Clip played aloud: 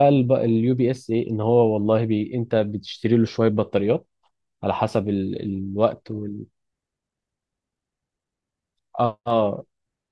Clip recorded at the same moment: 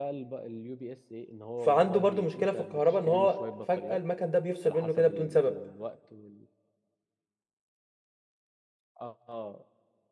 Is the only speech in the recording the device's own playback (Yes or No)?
No